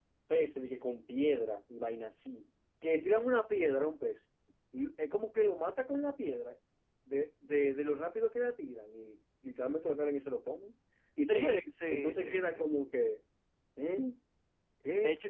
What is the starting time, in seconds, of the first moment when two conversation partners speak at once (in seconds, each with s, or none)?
11.2 s